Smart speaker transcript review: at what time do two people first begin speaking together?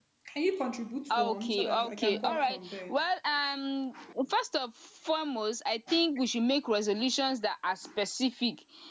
1.1 s

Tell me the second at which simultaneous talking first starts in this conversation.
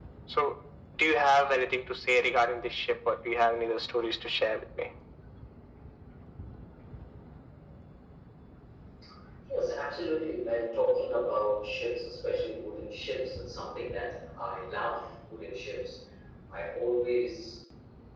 none

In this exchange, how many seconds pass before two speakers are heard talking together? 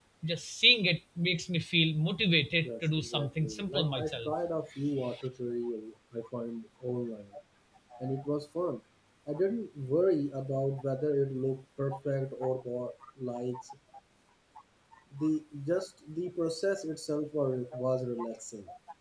2.6 s

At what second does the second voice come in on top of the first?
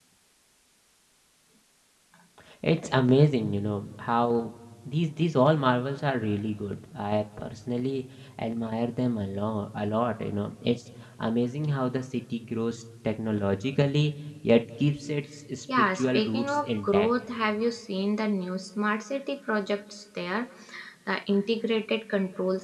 15.7 s

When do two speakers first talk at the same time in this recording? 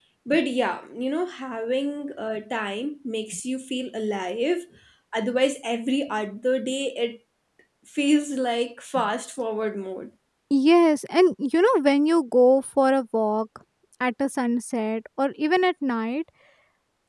none

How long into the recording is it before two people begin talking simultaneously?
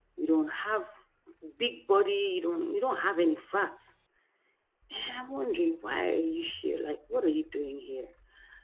none

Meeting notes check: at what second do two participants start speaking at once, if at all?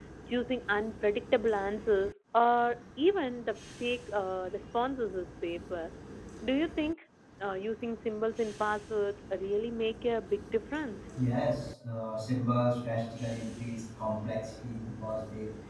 none

